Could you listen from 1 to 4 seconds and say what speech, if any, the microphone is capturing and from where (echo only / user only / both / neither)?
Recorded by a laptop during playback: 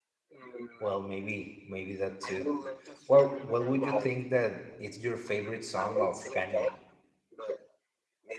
both